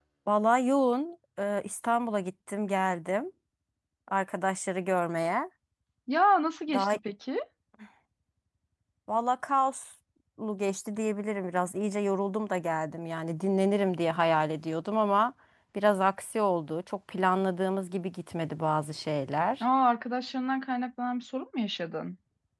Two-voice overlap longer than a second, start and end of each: none

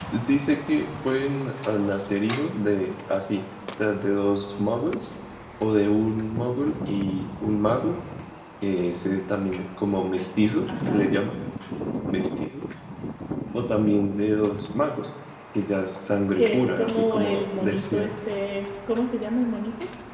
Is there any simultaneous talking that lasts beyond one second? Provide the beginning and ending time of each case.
16.4-18.1

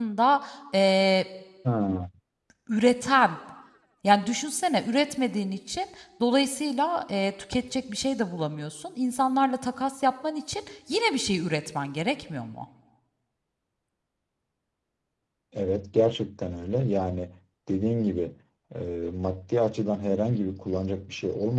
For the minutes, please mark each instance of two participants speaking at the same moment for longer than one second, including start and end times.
none

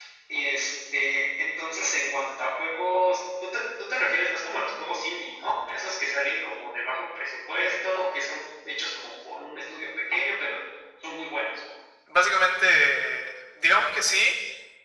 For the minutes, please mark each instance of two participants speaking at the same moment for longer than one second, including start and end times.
none

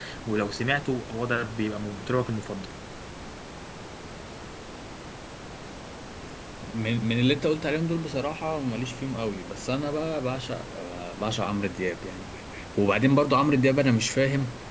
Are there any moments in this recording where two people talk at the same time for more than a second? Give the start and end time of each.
none

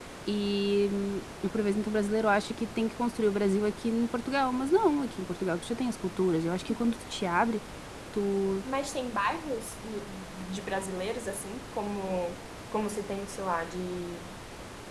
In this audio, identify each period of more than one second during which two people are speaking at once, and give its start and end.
none

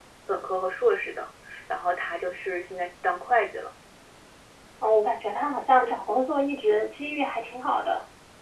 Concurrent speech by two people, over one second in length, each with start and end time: none

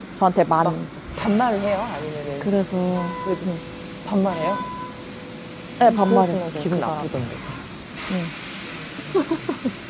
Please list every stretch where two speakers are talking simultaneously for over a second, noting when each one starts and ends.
5.8-7.1

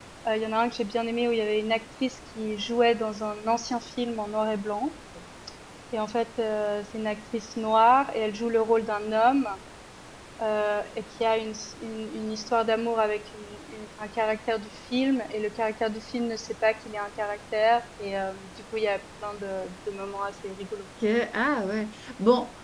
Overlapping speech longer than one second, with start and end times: none

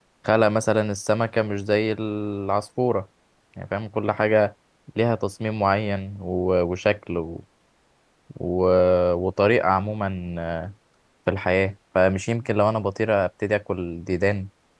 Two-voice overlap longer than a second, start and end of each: none

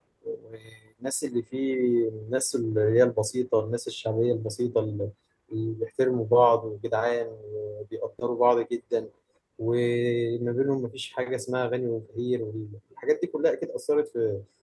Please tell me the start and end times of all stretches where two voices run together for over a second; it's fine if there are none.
none

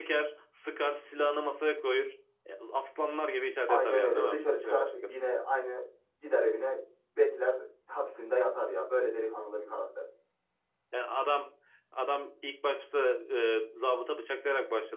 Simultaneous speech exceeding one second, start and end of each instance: 3.7-5.1

